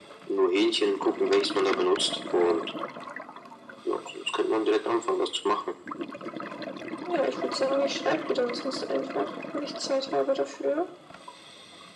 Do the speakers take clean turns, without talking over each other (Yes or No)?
Yes